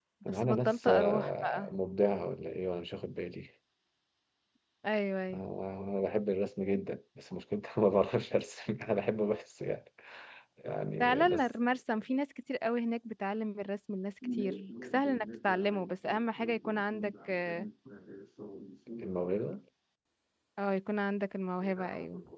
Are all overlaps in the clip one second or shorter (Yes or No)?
No